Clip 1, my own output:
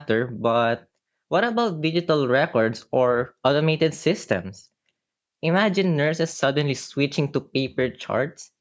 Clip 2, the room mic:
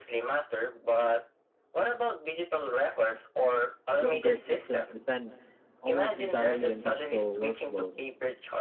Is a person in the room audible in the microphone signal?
Yes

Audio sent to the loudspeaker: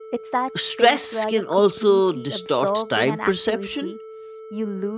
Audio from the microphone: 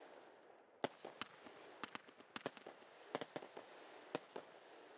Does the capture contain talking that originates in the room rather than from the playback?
No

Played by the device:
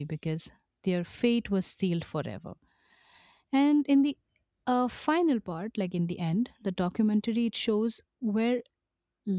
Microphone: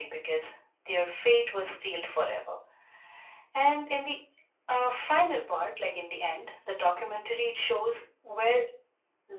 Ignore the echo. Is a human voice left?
No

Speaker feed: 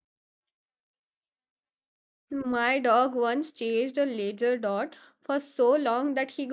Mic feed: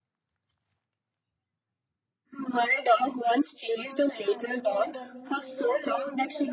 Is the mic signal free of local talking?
No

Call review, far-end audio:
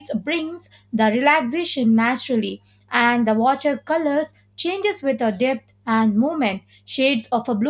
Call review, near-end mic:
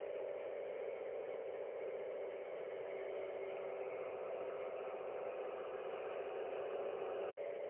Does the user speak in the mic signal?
No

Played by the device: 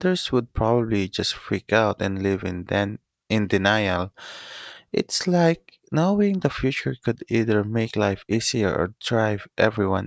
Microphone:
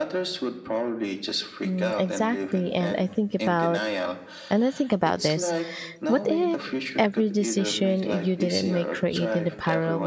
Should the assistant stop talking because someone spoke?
Yes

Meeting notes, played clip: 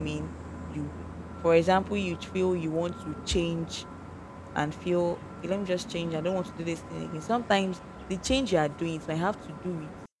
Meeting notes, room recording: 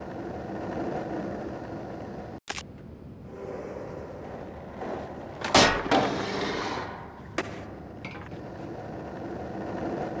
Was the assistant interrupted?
No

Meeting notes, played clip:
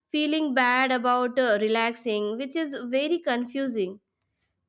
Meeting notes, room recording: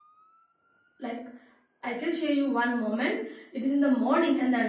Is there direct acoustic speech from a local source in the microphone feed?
Yes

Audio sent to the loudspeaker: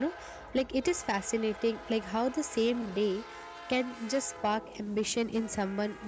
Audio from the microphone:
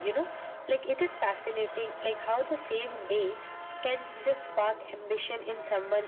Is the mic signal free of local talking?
Yes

